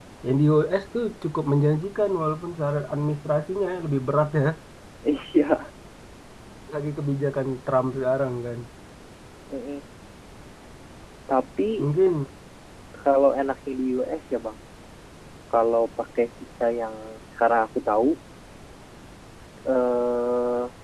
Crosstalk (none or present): none